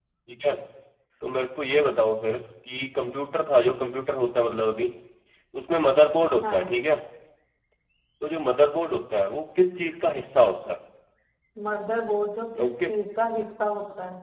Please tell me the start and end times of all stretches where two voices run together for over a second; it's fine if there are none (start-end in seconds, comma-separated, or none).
none